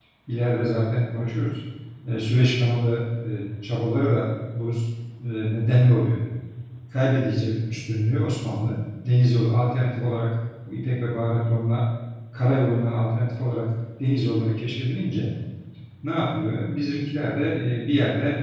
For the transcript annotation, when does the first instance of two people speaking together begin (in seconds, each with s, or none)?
none